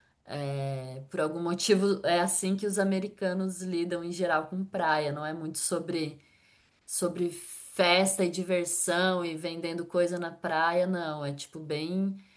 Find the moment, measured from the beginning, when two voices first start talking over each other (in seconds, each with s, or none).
none